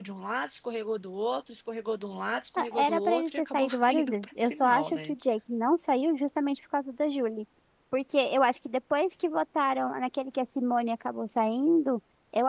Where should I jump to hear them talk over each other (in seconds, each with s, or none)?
2.6 s